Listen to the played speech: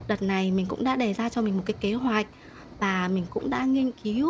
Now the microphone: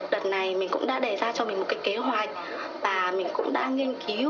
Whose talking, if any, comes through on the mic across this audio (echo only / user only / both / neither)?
both